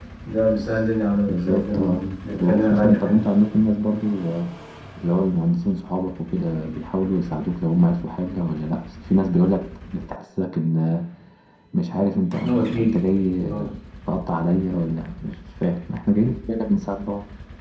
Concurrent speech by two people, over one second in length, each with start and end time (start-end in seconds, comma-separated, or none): 1.3-3.2